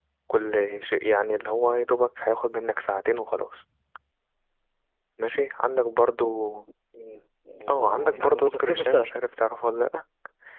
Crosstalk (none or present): present